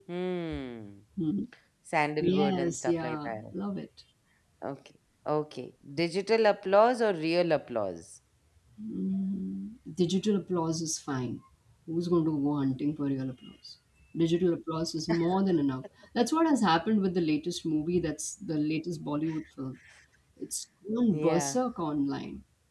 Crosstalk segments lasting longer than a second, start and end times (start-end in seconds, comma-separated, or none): 2.2-3.4